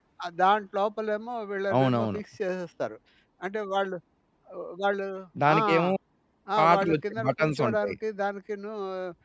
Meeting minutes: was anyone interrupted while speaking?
Yes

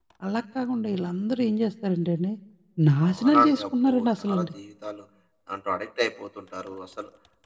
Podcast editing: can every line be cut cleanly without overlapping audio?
No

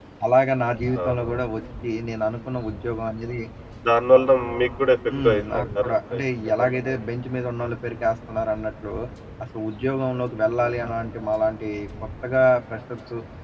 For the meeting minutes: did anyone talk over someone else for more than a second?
Yes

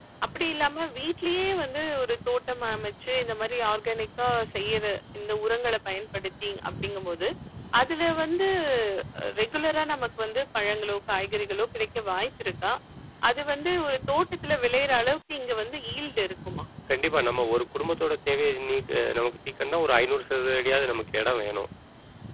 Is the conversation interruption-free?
Yes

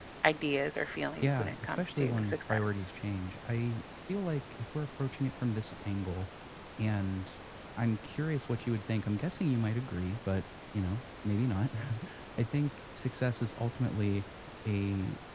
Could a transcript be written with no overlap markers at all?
No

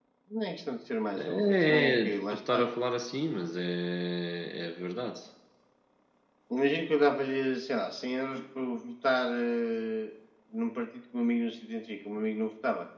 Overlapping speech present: Yes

